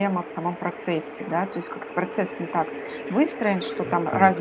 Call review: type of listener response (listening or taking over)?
listening